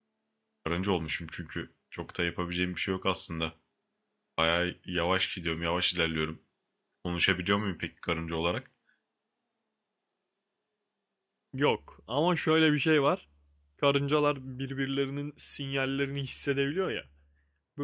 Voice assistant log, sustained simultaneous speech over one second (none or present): none